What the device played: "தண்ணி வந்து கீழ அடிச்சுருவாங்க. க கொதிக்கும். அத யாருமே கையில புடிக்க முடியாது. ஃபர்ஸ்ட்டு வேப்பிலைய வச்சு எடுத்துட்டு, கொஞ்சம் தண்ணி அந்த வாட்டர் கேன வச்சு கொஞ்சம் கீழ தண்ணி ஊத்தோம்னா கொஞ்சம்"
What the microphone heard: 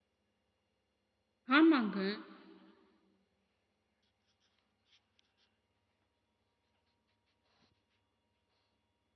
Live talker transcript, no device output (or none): ஆமாங்க.